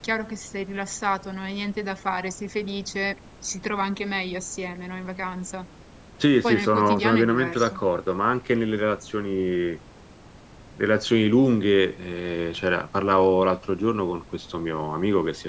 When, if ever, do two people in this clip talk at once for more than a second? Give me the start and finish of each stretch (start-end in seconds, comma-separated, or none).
6.4-7.8